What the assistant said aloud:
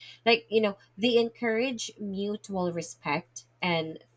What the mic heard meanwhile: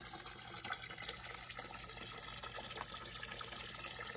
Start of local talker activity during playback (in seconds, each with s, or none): none